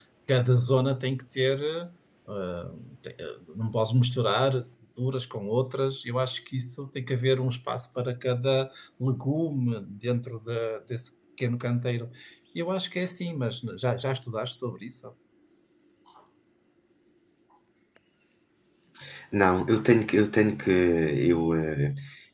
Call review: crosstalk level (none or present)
none